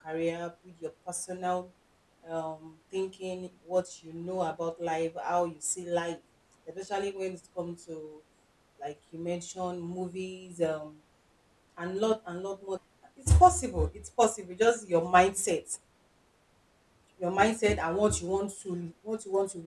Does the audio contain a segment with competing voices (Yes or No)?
No